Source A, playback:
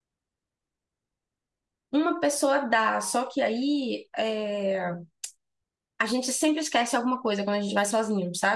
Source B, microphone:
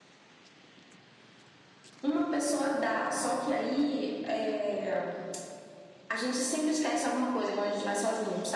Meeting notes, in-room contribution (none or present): none